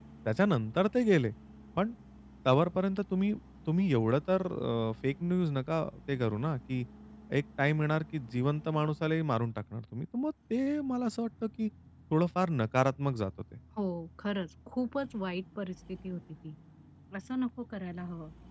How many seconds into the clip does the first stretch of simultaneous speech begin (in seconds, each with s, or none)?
none